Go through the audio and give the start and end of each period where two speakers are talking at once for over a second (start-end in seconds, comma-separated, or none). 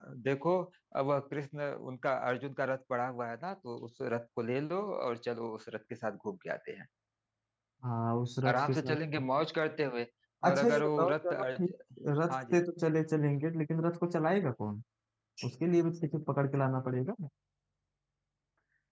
10.5-11.7